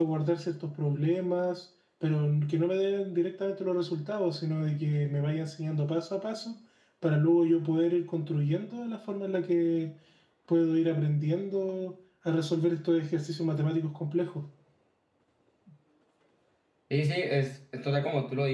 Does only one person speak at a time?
Yes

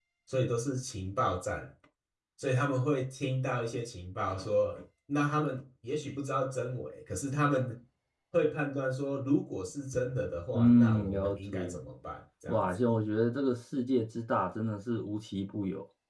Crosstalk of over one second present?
Yes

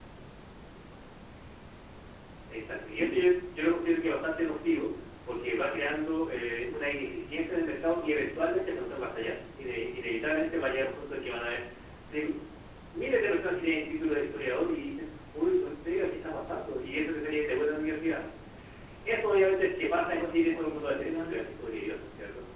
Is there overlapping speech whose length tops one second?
Yes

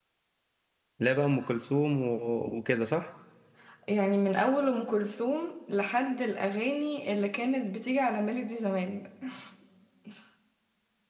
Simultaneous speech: No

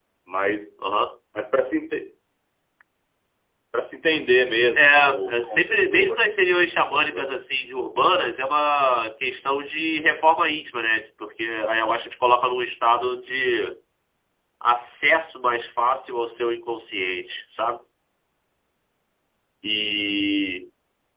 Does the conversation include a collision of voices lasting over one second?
Yes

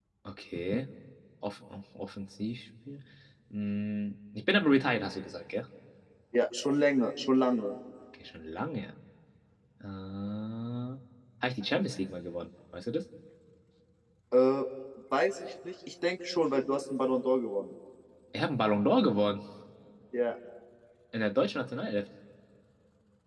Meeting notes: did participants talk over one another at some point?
No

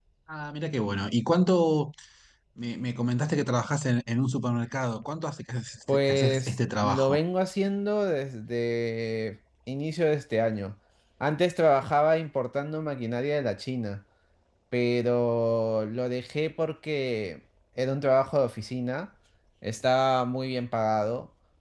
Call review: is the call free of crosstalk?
No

